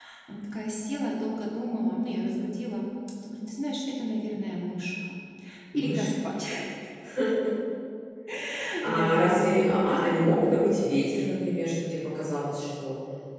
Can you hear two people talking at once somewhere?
Yes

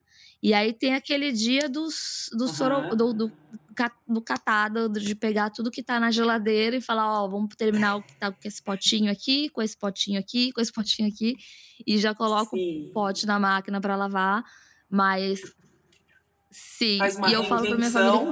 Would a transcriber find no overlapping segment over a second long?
No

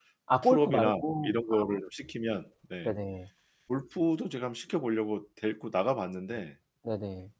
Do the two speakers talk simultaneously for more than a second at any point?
Yes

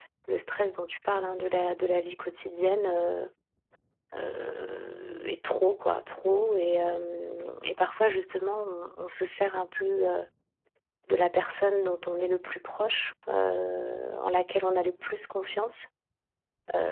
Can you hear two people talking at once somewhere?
No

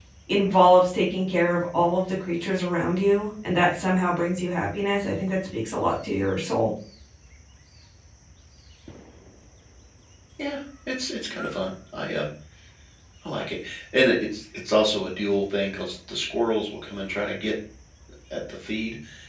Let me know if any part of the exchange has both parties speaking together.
No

